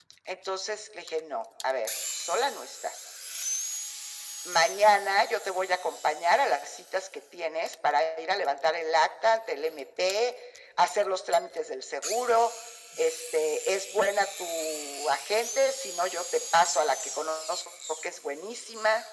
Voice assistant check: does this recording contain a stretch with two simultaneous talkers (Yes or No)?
No